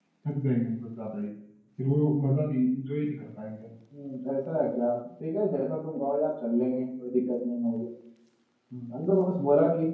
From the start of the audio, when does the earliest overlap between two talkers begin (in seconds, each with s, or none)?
none